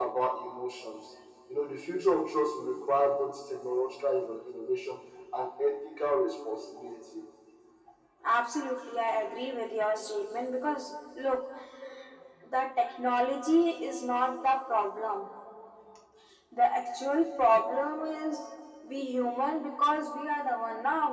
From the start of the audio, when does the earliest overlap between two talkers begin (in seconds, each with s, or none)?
none